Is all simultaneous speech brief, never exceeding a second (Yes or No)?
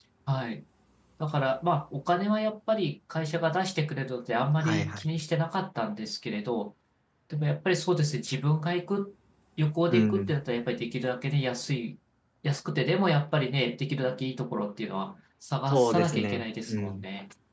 No